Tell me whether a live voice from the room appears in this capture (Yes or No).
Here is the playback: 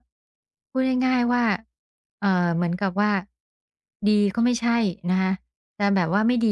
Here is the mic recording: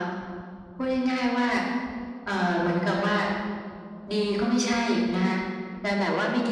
No